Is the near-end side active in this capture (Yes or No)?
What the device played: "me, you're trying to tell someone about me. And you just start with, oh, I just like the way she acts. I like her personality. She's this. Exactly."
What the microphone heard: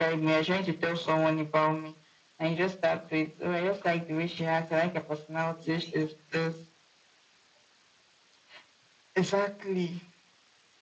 No